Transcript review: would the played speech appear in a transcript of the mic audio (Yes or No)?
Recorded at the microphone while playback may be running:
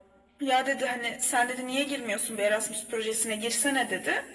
Yes